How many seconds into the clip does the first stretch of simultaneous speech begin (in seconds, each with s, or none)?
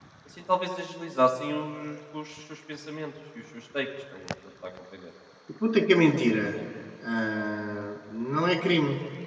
none